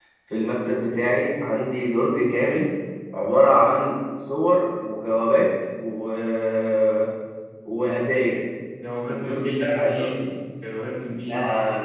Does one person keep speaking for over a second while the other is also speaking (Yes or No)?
Yes